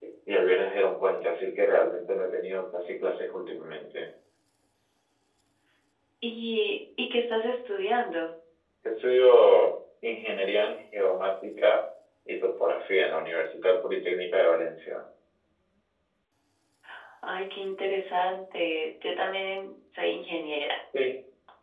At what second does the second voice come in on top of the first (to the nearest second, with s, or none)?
none